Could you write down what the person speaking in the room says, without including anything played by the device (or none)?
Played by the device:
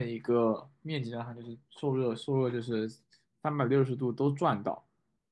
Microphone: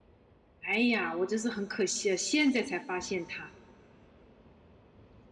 哎呀，我真是很可惜啊，现在才发现它，